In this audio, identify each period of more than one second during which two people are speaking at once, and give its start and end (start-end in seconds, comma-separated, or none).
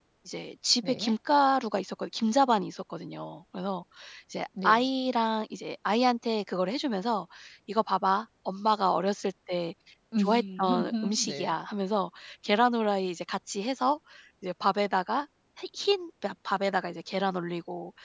10.2-11.5